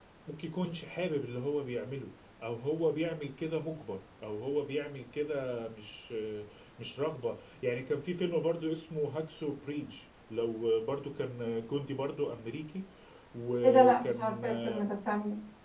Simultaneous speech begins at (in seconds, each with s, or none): 13.6 s